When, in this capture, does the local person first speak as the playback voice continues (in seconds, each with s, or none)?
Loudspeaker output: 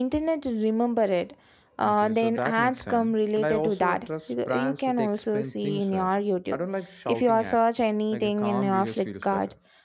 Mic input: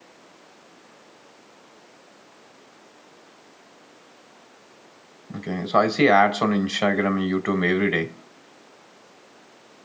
5.3 s